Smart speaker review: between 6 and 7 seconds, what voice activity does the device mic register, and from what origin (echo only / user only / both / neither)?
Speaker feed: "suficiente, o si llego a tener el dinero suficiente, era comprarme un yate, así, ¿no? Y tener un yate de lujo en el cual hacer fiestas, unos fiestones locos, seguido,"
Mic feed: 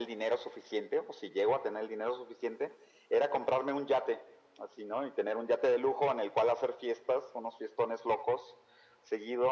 echo only